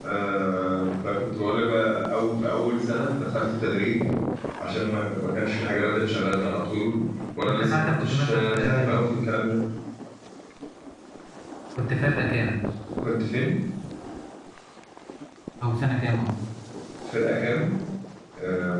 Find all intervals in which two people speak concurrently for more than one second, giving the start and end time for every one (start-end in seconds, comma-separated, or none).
7.5-9.0